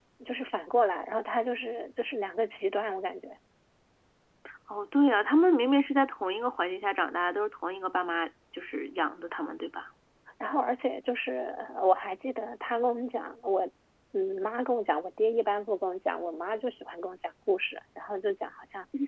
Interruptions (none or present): none